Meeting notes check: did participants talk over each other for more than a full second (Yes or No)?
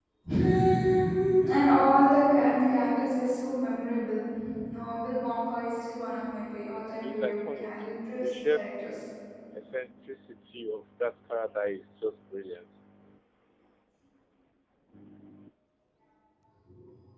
Yes